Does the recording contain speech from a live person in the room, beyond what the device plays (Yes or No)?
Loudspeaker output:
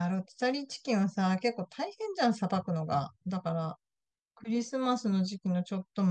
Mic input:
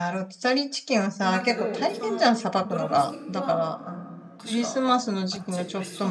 Yes